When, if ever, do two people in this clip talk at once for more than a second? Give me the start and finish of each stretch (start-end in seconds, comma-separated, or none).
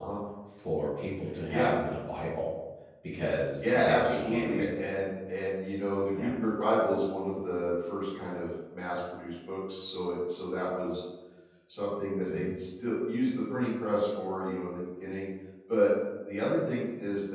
3.6-4.8